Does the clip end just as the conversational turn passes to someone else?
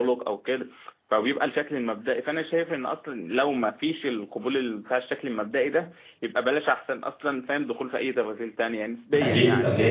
No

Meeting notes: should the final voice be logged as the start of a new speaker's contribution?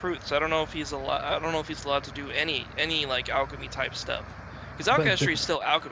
No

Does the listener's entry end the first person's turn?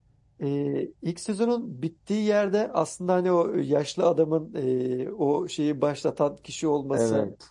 No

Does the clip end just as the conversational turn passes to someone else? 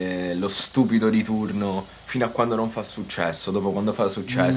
Yes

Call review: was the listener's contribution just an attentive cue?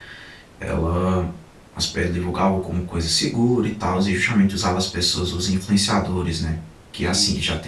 Yes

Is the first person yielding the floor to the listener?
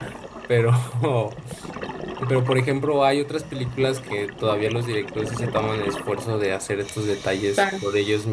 No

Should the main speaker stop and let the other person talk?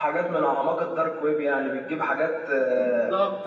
Yes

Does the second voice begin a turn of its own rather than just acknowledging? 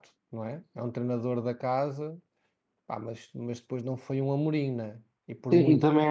Yes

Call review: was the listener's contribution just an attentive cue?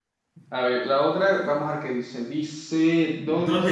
No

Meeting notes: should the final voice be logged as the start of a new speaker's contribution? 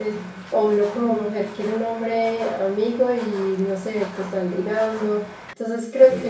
No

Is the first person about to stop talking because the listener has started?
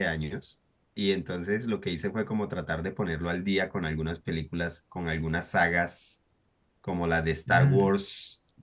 No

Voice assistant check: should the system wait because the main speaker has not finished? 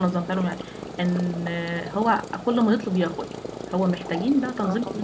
Yes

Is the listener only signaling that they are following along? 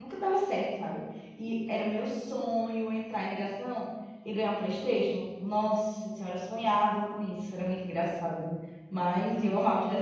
Yes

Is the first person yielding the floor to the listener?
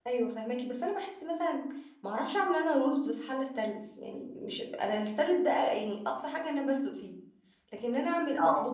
No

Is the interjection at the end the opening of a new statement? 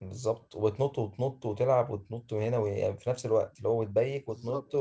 No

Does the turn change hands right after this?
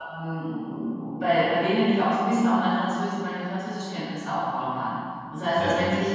No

